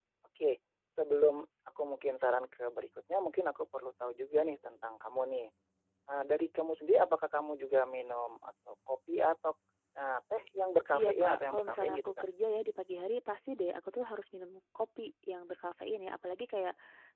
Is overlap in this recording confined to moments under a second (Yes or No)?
No